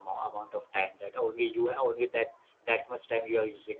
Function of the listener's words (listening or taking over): taking over